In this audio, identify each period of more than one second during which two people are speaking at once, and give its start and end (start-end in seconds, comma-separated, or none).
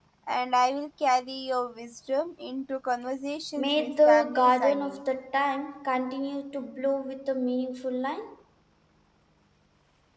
3.6-5.0